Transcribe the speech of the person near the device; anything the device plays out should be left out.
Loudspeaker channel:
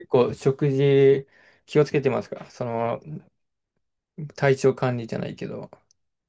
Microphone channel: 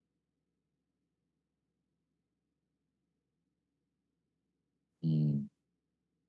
うん

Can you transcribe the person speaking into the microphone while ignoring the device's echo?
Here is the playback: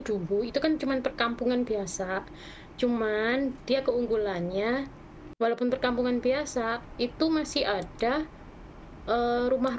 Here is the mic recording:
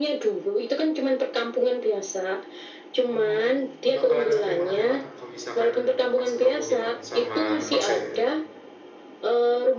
Oh, oh, bakalan capek banget ya Kak kalau misalkan pas Bromo gitu sama Tumpak Sewu.

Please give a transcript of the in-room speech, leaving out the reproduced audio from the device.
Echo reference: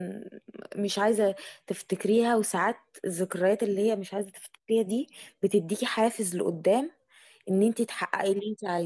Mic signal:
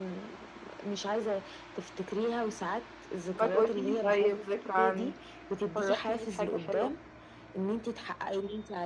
وهتقولي لي طيب ذكرى عنك فرحيني بحاجة حلوة

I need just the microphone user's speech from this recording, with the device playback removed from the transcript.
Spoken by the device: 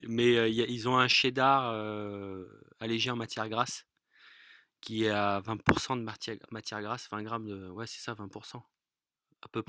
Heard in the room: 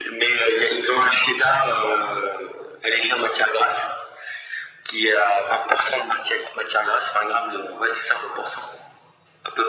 none

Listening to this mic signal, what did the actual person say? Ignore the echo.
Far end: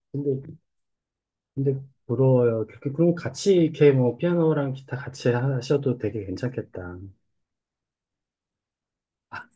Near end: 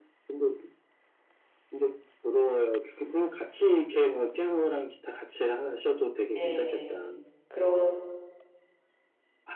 예. 그런

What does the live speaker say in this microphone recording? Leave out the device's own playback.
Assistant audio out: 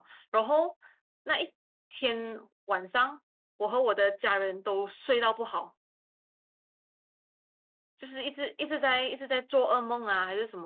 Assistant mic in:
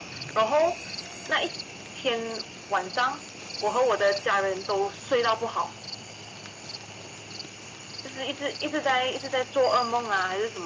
none

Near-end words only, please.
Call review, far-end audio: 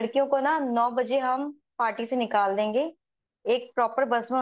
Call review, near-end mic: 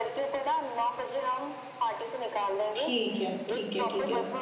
ठीक है ठीक है ठीक है

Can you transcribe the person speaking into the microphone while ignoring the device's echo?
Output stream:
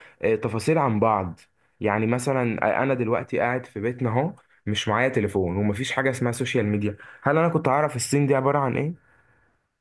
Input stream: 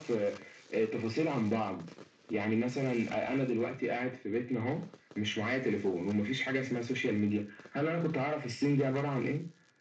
none

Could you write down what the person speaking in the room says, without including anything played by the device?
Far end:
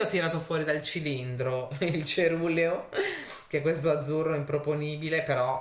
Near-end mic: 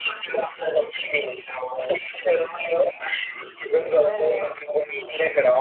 eh, sì,

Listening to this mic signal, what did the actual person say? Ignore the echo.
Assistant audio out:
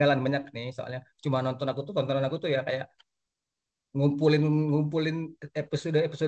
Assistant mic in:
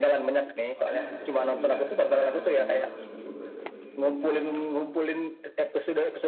Makanya aku kumpulin juga daripada nunggu per minggu per ini nunggunya

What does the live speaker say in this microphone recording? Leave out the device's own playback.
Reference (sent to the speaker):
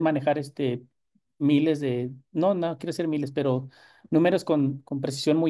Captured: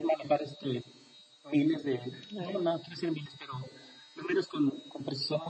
Ah,

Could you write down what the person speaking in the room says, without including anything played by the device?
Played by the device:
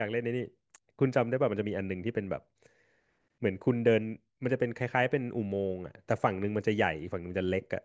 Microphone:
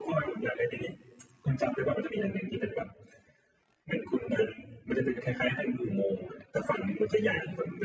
none

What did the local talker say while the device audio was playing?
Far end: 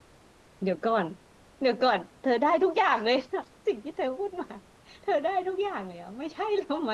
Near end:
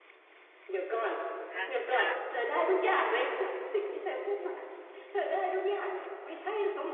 อ่ะกะ

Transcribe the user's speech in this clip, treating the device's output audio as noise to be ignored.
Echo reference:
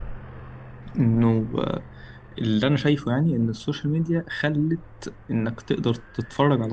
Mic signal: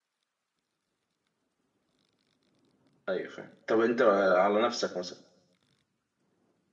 أيوه فاهم طب أنت على نفسك مثلا

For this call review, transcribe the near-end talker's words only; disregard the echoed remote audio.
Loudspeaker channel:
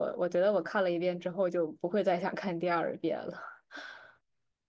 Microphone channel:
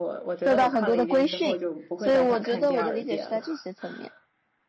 受到很多的规训，所以我觉得我的理解是在这些层面。

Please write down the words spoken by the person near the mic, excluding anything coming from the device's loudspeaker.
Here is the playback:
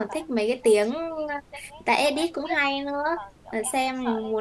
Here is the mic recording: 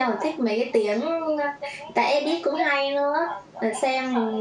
none

